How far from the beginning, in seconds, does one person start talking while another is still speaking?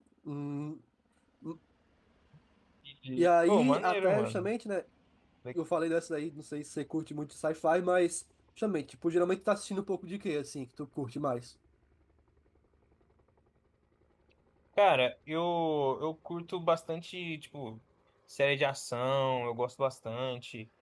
3.2 s

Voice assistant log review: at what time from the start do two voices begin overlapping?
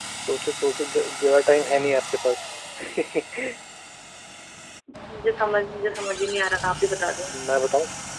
none

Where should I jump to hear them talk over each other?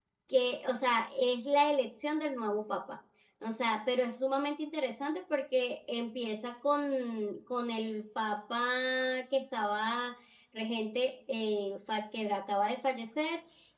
none

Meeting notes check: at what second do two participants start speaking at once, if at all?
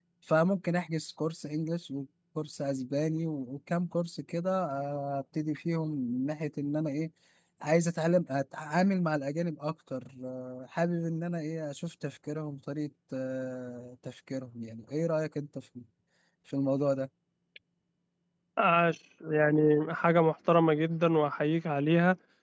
none

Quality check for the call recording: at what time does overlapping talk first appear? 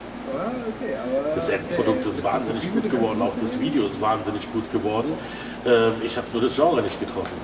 1.4 s

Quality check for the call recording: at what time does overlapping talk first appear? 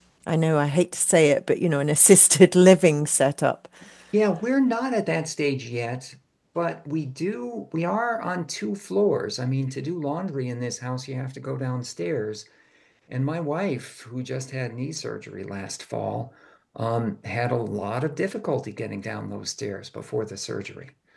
none

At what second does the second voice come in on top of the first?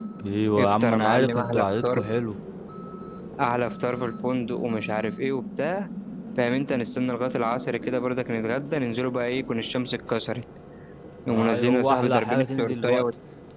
0.6 s

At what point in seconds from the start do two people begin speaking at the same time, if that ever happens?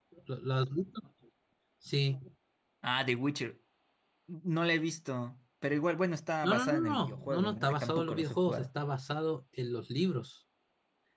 6.4 s

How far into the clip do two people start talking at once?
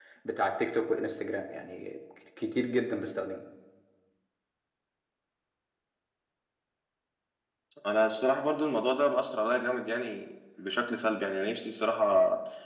none

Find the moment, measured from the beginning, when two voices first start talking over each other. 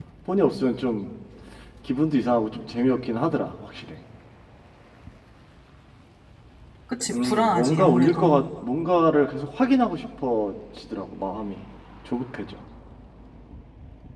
7.1 s

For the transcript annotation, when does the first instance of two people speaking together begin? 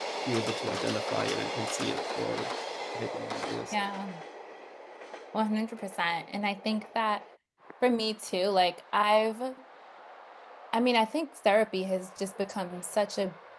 none

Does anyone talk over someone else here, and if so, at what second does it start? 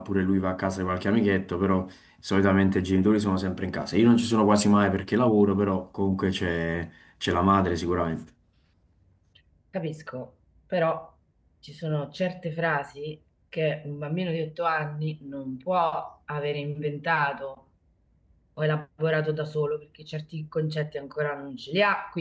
none

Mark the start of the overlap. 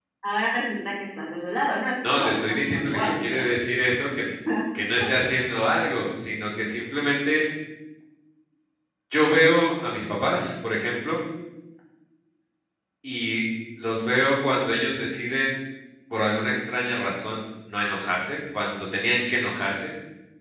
2.0 s

